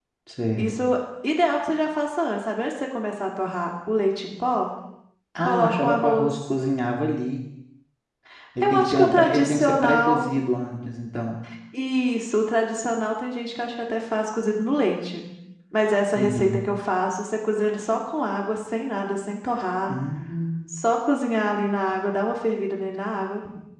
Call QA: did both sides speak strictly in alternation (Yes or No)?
No